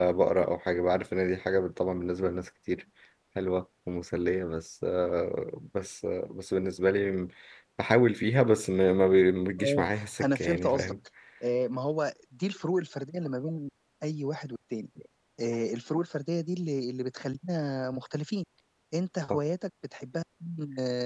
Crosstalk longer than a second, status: present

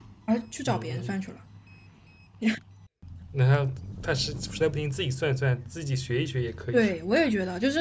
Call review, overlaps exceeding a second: none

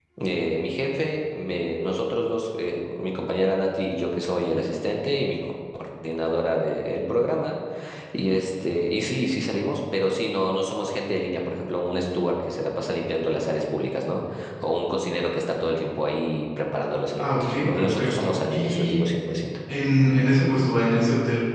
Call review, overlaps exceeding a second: present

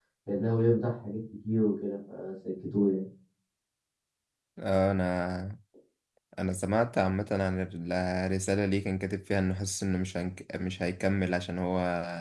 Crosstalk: none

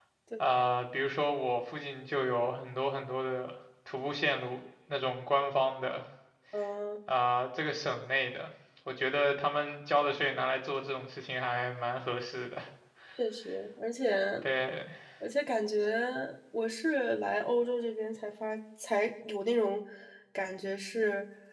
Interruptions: none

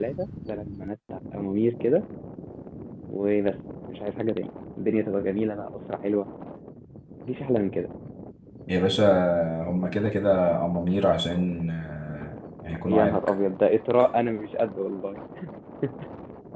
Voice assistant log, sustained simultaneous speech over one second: none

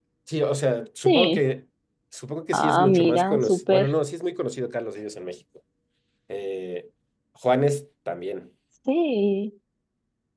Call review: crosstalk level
present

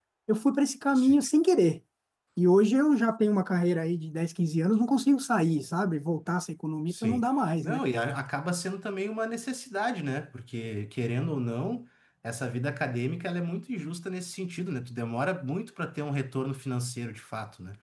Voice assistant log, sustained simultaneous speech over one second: none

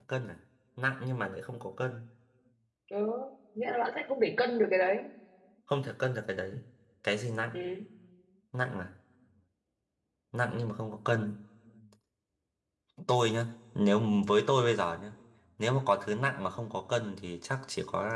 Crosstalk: none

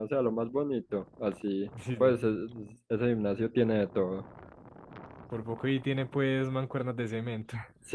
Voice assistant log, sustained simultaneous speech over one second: none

